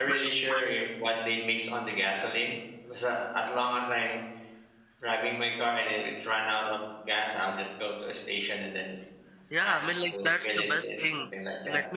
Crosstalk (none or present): present